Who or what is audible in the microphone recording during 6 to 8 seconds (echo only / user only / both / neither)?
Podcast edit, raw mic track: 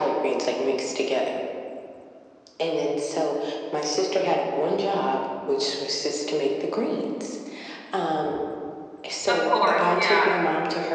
echo only